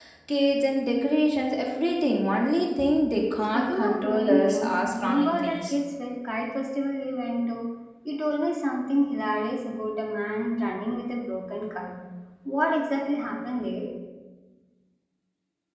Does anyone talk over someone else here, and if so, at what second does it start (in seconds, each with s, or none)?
3.5 s